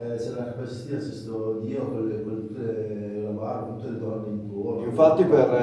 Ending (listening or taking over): taking over